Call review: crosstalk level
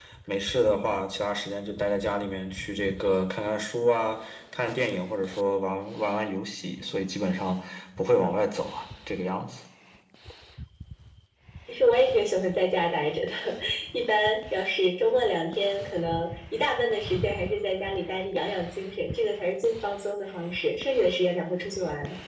none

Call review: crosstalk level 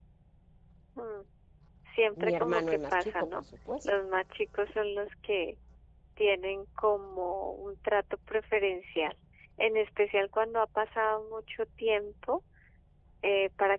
present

